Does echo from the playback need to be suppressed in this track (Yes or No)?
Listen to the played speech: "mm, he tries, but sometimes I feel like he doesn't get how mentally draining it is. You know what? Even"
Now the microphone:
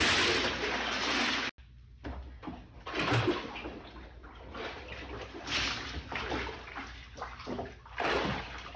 No